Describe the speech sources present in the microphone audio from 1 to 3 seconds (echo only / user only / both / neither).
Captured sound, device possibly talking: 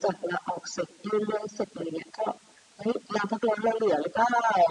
echo only